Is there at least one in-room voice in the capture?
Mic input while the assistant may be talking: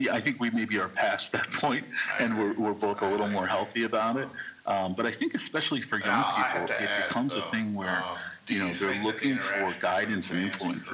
Yes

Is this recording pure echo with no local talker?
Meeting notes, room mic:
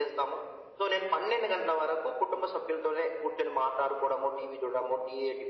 Yes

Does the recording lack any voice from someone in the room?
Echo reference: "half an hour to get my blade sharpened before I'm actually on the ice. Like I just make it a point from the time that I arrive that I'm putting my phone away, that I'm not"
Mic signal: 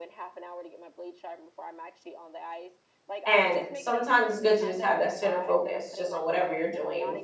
No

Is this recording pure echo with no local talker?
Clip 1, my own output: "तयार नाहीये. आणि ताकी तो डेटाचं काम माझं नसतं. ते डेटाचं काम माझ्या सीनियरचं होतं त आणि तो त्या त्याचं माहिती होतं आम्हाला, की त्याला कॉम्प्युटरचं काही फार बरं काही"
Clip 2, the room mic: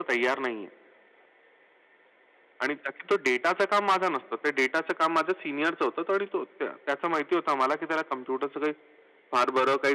Yes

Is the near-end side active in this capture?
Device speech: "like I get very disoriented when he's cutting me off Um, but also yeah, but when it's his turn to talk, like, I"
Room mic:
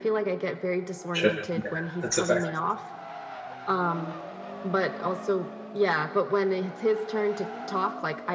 Yes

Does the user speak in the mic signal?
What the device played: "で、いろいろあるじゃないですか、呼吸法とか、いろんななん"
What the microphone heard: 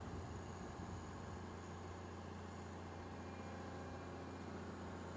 No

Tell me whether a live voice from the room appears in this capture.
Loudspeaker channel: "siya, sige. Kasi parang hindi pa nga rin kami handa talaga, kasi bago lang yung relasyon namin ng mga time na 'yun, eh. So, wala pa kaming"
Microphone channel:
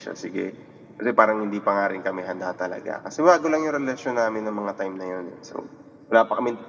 No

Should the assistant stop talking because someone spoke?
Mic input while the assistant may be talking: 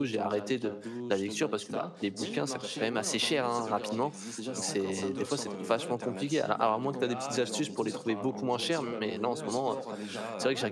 Yes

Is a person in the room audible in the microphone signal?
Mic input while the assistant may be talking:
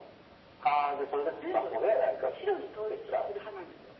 No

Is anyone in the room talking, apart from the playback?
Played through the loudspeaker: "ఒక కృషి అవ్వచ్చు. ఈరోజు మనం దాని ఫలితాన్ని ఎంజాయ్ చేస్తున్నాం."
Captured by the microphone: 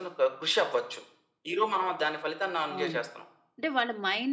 Yes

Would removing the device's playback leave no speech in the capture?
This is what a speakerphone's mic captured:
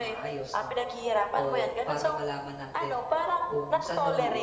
No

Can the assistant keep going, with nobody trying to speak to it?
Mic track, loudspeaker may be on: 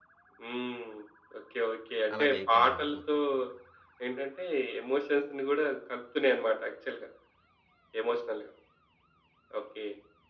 No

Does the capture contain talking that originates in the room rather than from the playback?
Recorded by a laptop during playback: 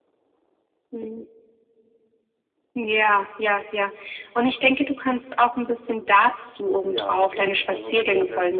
Yes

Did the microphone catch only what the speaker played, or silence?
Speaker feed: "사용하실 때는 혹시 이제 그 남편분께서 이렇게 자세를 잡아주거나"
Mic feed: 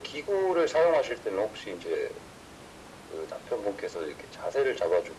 Yes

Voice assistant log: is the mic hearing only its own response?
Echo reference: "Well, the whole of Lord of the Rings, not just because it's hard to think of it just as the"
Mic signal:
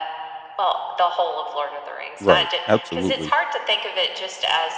No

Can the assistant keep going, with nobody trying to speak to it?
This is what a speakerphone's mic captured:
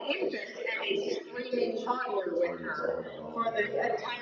No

